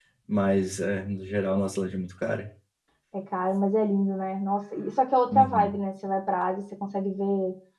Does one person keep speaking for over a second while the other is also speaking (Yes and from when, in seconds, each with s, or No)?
No